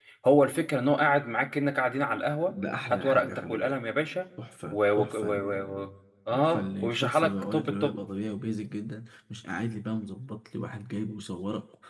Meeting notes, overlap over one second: present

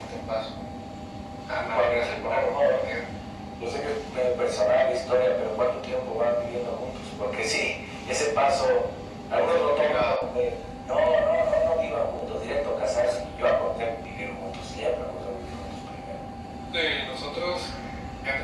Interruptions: present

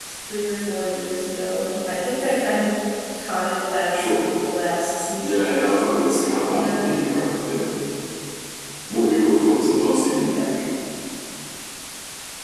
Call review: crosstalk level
present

